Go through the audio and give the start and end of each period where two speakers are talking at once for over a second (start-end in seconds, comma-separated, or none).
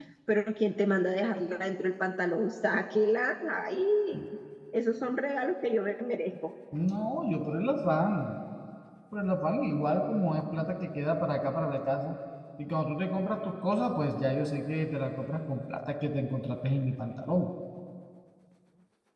none